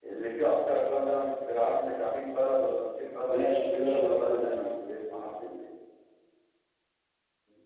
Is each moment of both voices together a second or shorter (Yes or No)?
No